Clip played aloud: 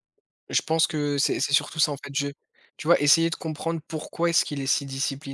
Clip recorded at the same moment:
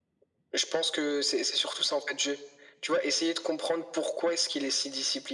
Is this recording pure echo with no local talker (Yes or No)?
Yes